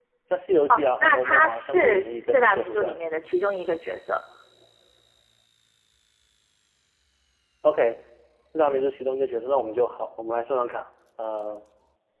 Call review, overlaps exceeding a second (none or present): present